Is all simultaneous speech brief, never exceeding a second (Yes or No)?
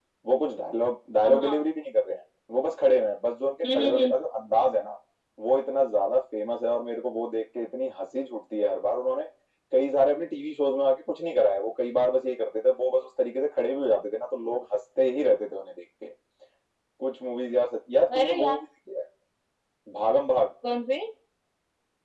Yes